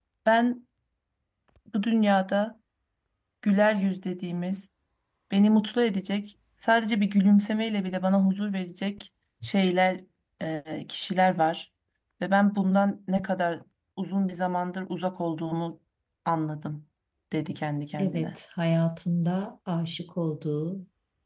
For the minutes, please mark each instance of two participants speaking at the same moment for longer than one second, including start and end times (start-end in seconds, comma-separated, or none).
none